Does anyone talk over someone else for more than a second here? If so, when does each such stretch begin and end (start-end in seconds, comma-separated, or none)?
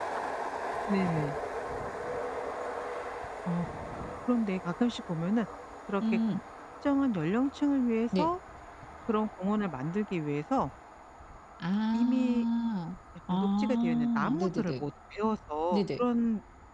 13.3-14.8